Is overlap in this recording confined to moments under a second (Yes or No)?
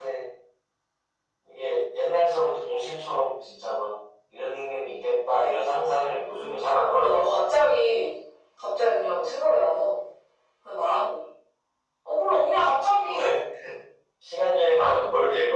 No